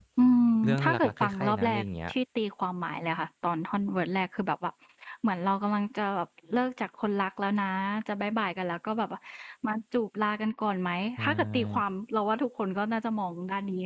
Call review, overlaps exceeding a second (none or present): present